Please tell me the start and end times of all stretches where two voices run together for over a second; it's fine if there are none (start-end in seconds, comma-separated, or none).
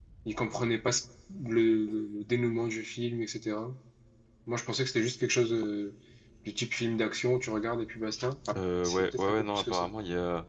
8.6-9.9